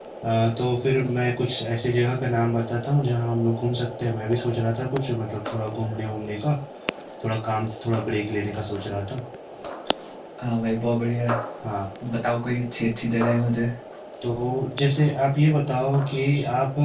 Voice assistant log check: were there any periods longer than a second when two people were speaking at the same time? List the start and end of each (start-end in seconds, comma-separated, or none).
none